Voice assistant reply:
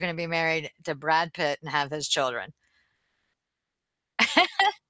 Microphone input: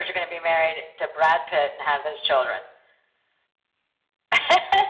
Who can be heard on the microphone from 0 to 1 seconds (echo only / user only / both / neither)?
echo only